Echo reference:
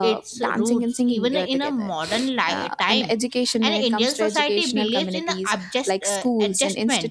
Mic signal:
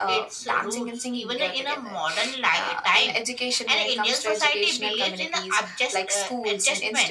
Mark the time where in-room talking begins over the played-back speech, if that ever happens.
none

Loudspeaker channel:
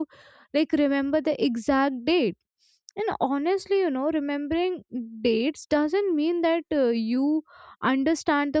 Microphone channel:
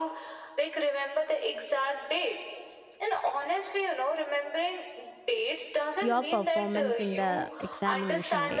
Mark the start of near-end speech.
6 s

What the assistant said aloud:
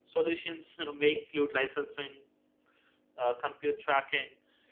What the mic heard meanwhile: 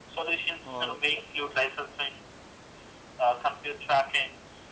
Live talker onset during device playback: 1 s

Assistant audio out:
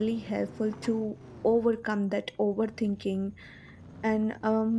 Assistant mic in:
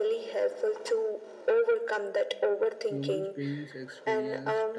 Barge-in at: 3 s

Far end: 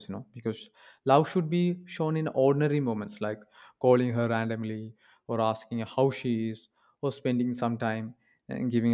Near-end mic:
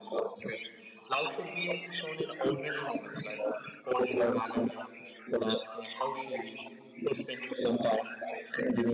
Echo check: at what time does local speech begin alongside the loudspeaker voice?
none

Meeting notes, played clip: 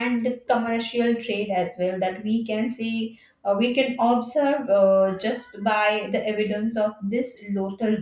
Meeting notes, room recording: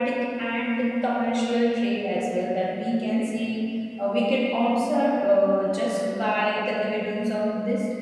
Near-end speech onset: none

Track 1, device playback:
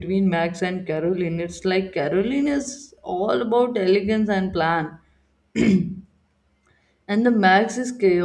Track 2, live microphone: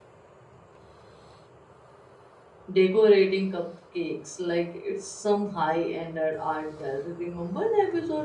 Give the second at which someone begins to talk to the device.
3 s

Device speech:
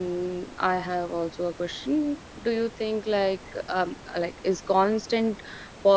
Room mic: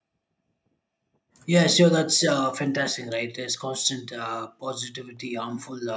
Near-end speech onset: 1 s

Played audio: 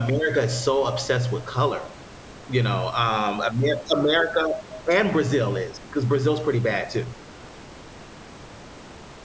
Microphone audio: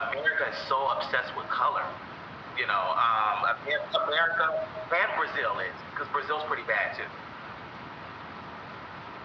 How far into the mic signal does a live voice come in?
none

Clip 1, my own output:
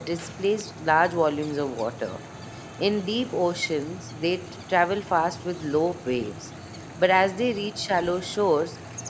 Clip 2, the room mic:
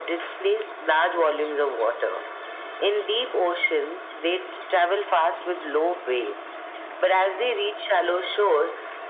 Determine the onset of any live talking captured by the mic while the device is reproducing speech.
none

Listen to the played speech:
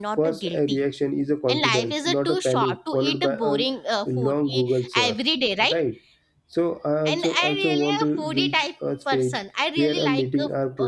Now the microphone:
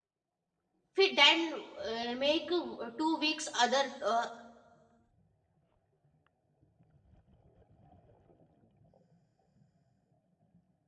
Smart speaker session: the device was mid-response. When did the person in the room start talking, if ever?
1 s

